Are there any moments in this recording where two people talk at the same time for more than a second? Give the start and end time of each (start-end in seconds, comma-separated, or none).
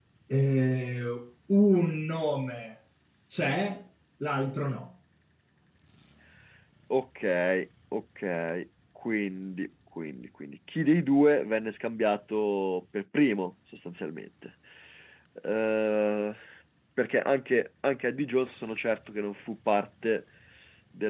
none